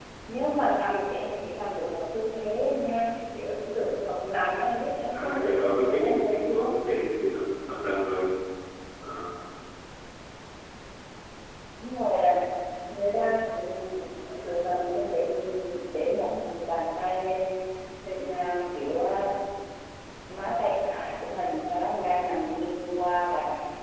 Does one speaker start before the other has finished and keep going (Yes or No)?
Yes